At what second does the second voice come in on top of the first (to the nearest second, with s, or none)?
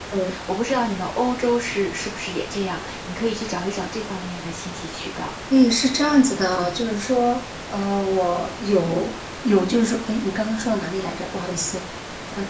none